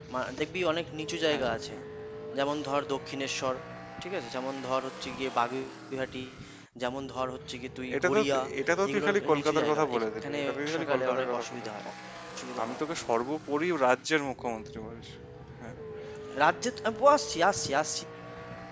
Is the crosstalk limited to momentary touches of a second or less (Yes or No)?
No